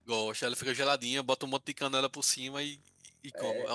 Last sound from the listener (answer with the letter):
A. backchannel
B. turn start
B